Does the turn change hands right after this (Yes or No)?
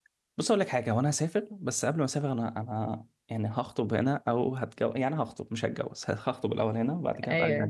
No